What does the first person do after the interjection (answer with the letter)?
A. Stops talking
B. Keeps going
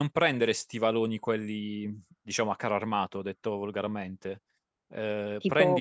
A